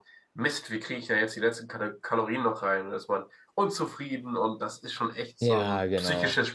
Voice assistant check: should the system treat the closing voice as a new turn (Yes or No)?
Yes